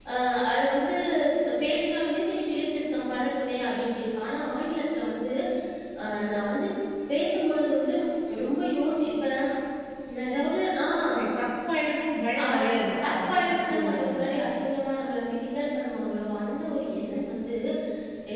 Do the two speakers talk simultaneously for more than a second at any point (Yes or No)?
Yes